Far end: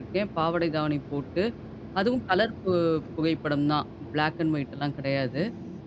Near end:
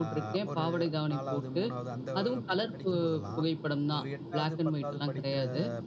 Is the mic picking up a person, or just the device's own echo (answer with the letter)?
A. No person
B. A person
B